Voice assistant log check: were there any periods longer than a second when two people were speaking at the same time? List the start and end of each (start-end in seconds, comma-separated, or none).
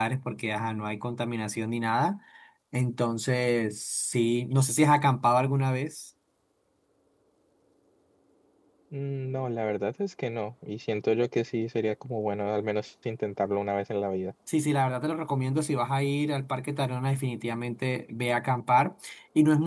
none